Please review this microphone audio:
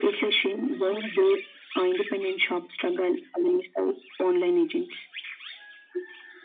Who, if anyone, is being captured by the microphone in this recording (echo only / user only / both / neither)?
echo only